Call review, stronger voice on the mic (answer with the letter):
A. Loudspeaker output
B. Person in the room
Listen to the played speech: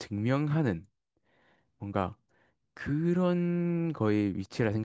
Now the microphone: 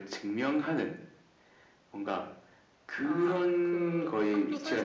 A